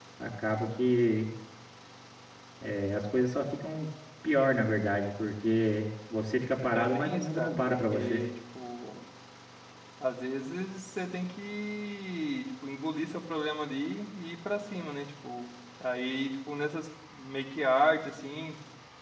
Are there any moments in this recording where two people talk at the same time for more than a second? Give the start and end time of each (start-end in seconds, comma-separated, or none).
6.7-8.2